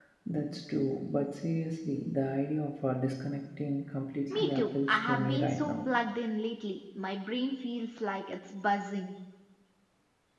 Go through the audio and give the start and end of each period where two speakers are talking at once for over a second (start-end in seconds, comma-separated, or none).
4.3-5.7